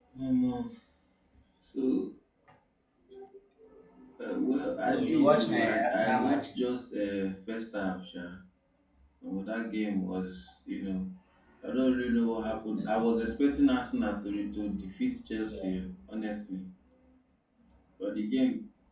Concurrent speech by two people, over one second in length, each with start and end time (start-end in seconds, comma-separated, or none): 4.9-6.5